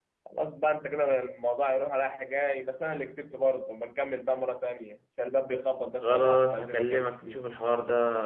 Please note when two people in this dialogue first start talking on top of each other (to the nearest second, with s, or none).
6 s